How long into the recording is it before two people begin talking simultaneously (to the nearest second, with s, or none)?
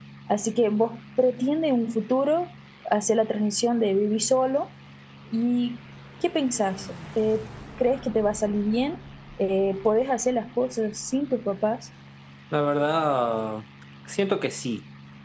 none